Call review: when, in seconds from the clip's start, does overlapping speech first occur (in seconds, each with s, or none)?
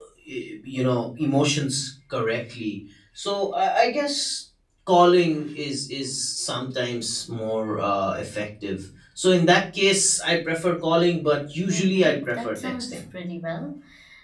11.7 s